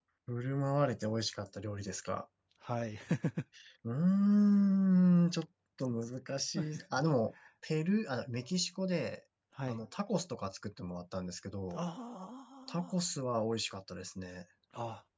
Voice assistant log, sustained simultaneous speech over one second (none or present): none